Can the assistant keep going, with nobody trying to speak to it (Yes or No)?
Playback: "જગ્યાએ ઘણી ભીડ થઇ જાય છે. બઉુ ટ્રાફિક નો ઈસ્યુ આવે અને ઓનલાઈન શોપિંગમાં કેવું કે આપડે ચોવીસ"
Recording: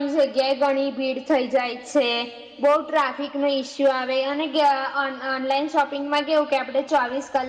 Yes